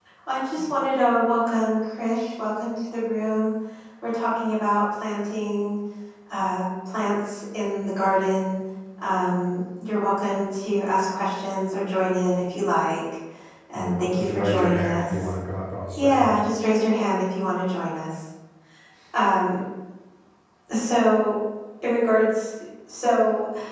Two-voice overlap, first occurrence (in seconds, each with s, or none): 13.8 s